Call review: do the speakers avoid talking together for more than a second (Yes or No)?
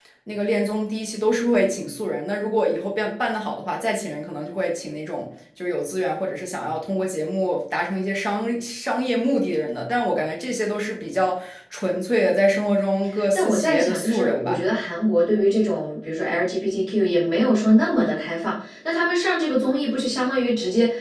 No